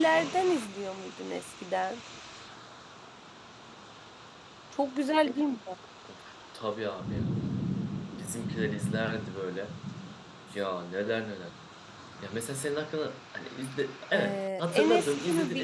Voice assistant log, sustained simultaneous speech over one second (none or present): present